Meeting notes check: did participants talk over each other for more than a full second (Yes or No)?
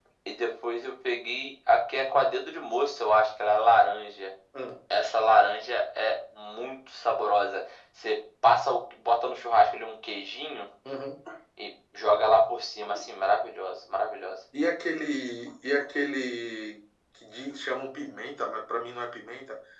No